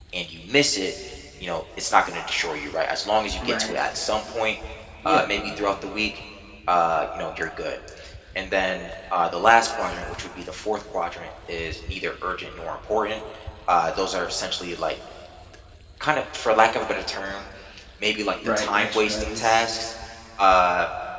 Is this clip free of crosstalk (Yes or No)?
No